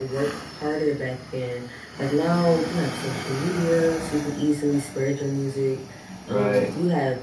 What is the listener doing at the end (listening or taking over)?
listening